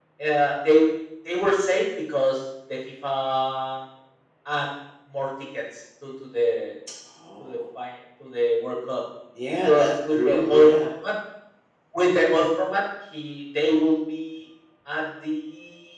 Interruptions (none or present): present